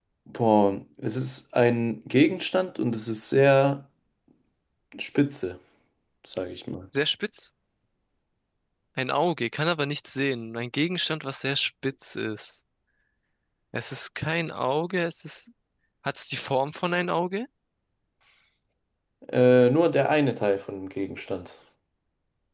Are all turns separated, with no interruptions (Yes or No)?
Yes